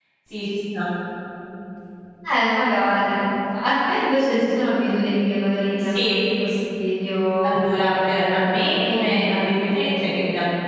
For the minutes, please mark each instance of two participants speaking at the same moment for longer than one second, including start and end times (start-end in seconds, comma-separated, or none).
8.0-9.3